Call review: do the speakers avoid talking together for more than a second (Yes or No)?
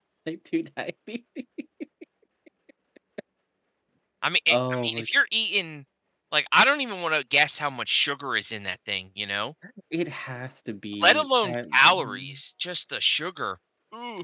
No